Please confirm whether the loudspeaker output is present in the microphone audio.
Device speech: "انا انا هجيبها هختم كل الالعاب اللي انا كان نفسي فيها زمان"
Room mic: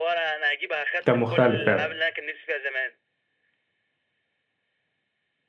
Yes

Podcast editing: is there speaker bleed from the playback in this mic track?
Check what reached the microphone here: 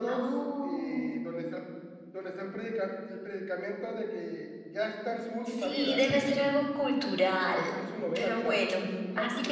Yes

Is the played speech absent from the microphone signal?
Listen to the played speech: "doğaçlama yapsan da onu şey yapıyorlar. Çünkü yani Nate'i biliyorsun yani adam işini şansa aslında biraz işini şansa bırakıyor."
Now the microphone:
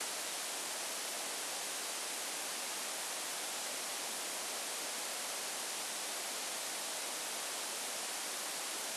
Yes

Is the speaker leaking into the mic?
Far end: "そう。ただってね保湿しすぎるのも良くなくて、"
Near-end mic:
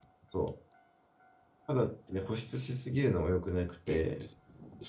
Yes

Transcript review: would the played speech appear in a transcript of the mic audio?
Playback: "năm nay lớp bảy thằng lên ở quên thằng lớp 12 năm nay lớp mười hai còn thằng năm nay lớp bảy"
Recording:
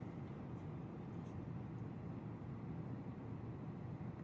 No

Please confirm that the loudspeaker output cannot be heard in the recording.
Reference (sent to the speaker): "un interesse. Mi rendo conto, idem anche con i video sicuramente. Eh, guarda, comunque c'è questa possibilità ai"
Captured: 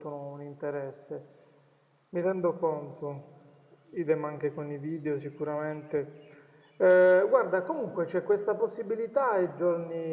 No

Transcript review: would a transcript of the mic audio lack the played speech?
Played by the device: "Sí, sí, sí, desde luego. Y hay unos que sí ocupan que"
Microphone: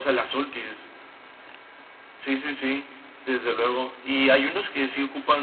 No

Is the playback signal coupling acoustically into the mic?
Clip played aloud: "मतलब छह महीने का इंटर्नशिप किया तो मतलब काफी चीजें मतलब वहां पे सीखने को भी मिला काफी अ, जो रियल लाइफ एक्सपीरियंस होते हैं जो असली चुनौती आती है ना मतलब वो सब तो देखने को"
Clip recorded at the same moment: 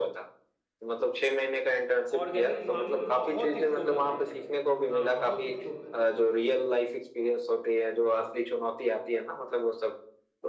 Yes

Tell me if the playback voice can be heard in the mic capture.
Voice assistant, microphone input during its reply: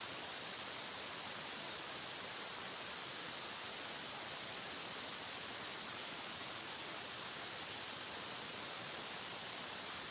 No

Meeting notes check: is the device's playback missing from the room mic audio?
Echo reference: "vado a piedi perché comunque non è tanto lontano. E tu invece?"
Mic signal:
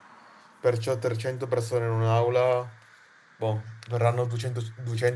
Yes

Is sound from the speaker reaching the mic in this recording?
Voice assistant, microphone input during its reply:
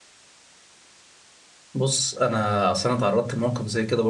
No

